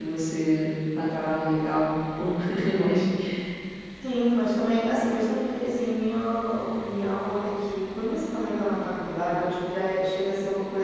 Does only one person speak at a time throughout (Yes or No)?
Yes